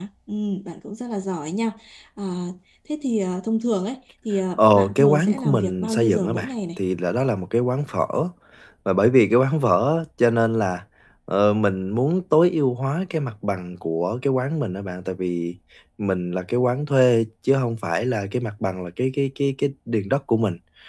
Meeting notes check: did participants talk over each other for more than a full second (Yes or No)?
Yes